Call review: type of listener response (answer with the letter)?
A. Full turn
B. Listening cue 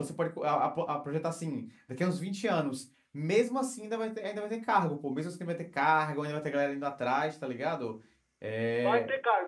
A